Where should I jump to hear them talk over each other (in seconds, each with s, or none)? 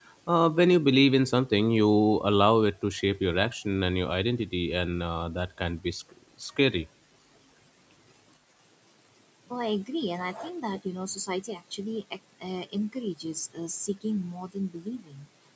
none